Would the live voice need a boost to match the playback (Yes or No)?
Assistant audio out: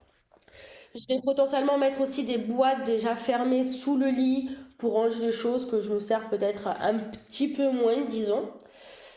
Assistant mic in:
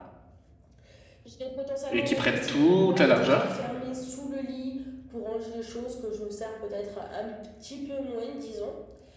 No